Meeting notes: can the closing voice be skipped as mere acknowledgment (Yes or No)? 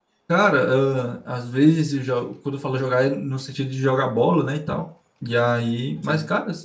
Yes